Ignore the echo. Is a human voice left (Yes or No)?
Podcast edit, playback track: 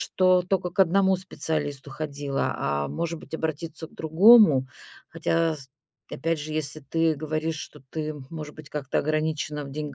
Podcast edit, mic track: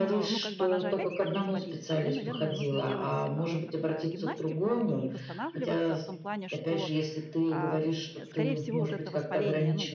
Yes